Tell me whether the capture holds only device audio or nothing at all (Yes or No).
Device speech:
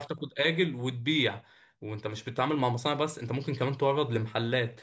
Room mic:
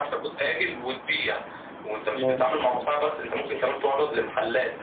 No